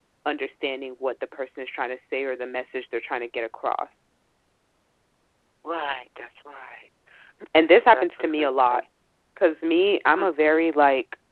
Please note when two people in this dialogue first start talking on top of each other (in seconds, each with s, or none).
7.6 s